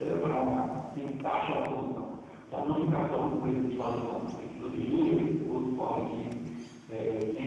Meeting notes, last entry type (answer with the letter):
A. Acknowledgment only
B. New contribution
A